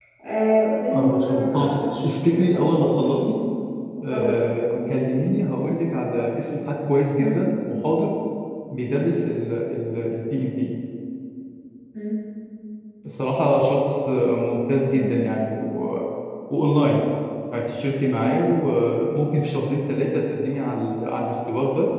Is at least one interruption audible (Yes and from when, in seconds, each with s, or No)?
Yes, from 0.9 s